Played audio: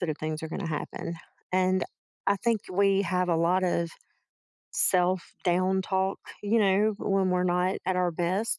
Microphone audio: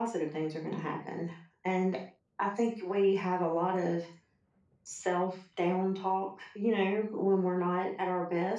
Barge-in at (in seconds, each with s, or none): none